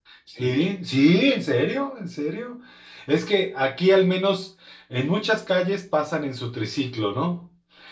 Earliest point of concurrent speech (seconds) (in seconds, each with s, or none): none